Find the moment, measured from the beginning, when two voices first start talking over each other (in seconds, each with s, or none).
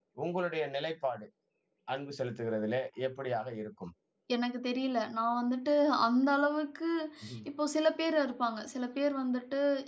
none